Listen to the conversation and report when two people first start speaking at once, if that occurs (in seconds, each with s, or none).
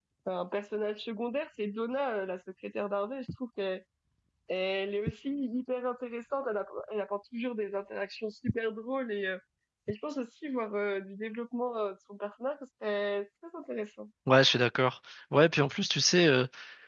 none